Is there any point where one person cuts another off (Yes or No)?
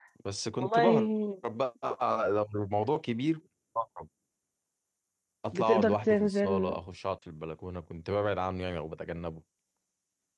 Yes